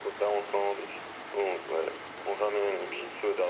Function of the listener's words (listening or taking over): listening